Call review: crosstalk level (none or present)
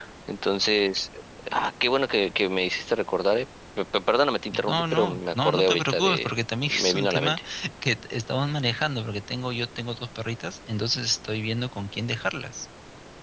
present